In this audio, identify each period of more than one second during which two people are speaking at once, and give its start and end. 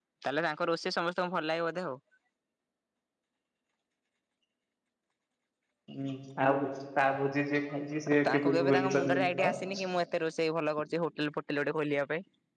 8.1-9.5

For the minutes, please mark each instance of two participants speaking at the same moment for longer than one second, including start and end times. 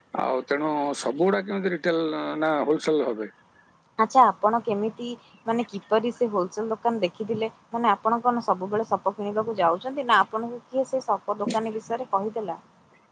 none

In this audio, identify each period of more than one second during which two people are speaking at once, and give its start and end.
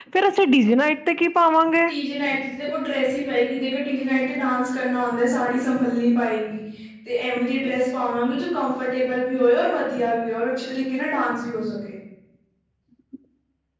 none

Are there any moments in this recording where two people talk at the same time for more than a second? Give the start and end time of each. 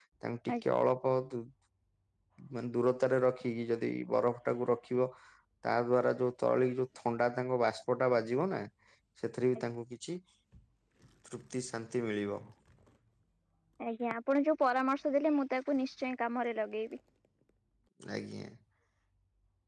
none

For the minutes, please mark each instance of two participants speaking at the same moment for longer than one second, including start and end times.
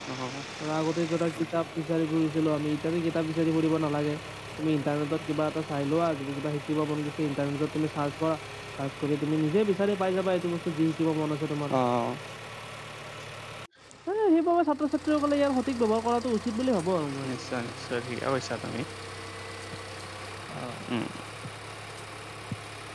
none

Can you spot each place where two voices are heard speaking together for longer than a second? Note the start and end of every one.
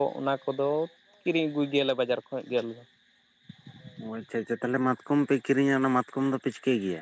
none

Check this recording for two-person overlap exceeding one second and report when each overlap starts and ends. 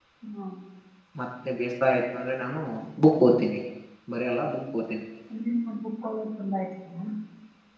none

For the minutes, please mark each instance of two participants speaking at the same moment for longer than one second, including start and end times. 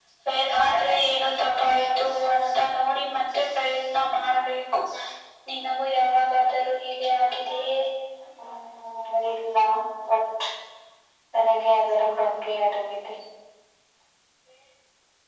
none

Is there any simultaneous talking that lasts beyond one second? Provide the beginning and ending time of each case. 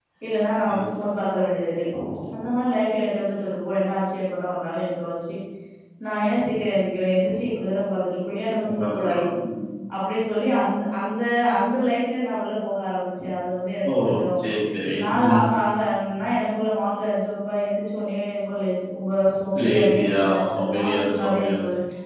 19.6-21.5

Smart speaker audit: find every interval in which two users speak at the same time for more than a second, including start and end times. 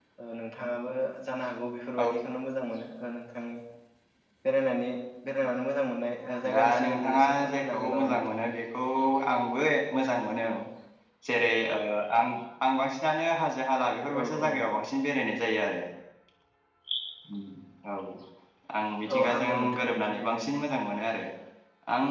6.5-8.4, 19.1-20.5

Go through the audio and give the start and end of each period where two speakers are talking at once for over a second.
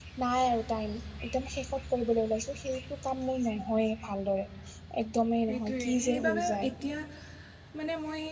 5.5-6.7

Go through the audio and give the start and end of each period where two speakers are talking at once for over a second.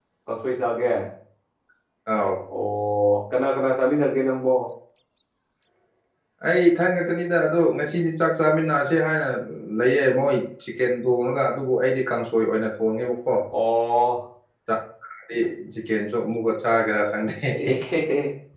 none

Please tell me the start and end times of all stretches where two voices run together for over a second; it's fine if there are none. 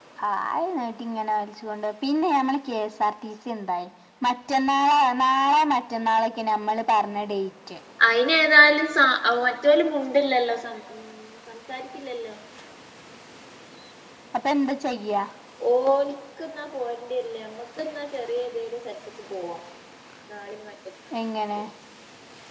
none

